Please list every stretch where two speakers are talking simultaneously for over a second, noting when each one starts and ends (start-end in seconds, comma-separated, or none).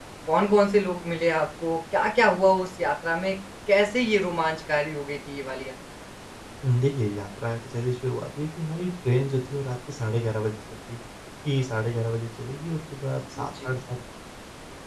none